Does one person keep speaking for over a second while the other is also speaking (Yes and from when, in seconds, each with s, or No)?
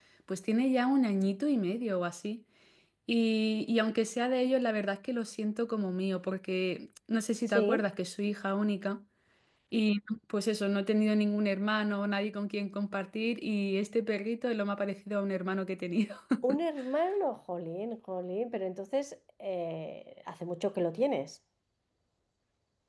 No